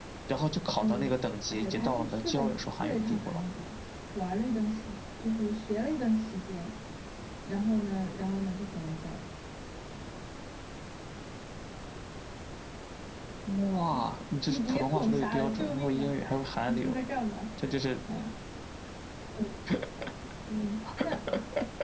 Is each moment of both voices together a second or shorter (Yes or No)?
No